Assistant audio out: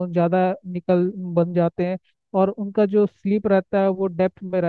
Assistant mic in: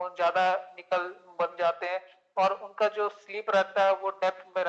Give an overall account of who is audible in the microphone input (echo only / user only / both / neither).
echo only